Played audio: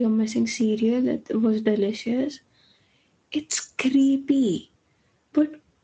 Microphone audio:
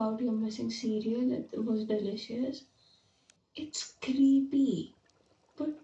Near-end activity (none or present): none